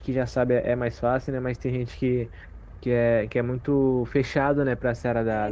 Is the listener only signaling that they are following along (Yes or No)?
No